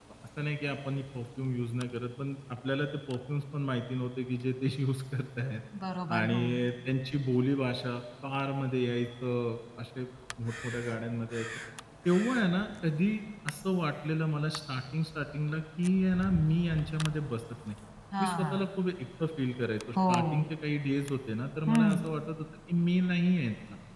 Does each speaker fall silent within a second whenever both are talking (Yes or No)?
Yes